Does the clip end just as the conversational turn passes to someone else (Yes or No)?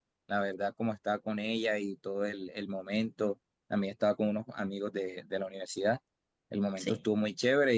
No